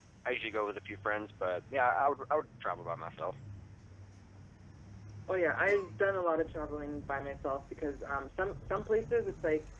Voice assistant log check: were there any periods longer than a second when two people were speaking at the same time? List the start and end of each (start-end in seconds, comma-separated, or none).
none